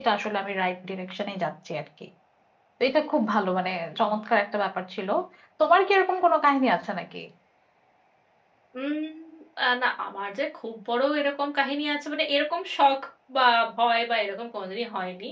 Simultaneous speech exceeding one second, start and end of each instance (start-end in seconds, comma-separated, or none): none